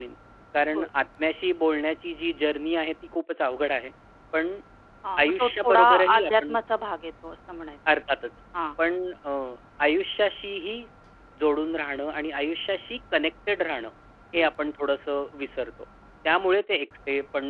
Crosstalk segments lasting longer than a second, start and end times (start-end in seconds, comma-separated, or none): 5.2-6.6